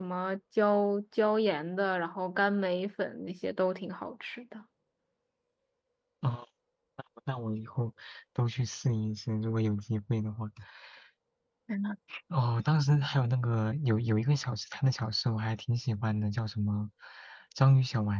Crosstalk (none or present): none